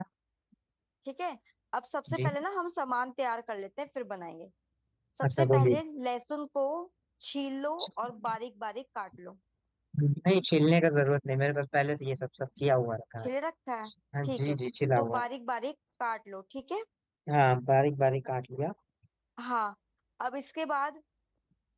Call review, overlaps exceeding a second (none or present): none